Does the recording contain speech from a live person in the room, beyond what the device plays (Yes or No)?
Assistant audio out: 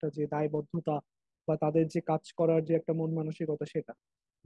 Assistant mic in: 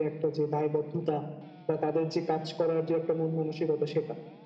No